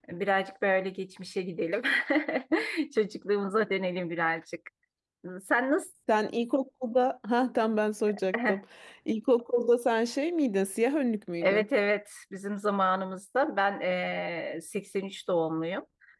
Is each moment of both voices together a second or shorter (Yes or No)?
Yes